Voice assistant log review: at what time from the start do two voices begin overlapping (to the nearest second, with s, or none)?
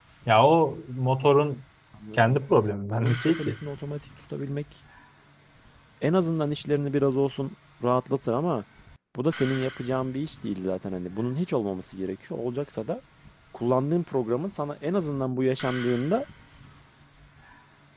2 s